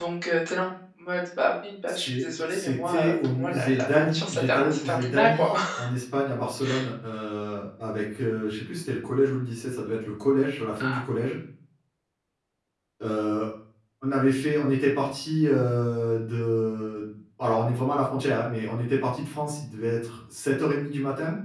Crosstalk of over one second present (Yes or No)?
Yes